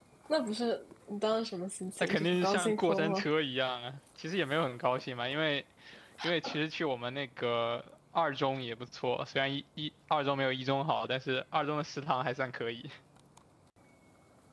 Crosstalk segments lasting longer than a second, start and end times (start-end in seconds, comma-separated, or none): 2.0-3.2